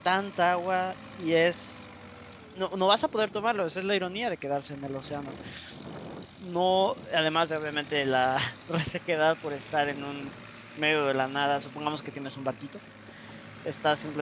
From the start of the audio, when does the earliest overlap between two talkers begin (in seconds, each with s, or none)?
none